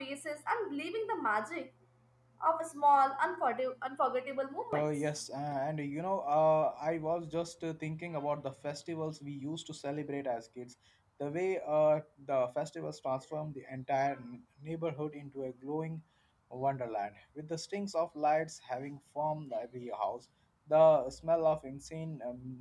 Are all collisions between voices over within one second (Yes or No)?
Yes